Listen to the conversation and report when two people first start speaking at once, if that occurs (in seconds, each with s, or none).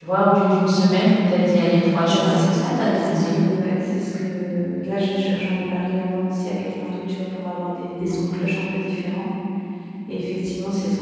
2.0 s